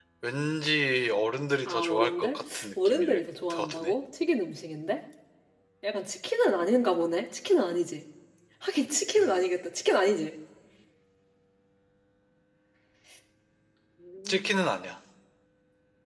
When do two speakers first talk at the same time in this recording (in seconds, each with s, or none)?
1.7 s